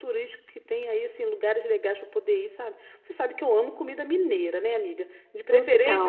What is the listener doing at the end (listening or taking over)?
listening